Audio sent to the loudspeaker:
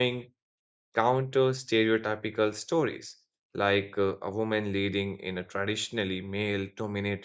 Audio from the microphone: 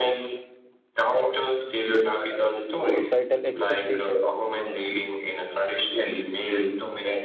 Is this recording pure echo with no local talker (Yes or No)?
No